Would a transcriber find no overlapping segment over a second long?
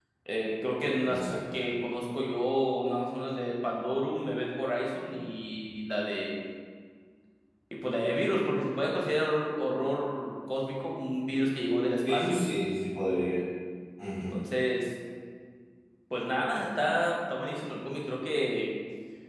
Yes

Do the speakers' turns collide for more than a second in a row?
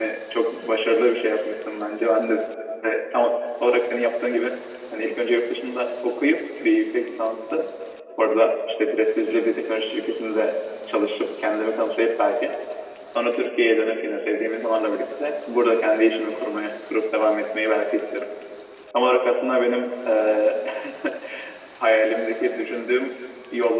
No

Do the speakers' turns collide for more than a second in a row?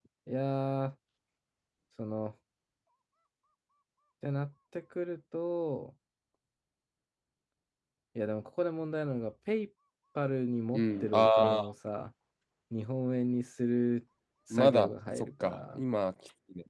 Yes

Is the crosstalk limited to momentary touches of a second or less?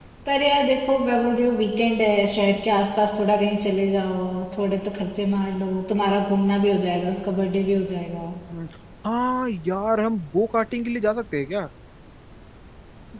Yes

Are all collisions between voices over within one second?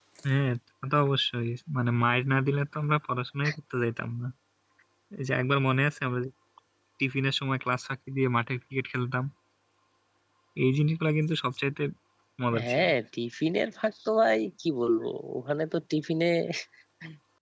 Yes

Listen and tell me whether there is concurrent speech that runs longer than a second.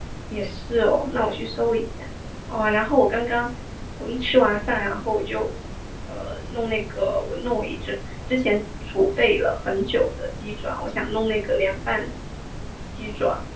No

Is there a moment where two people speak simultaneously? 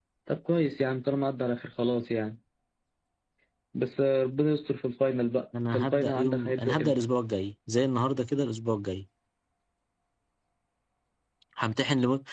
Yes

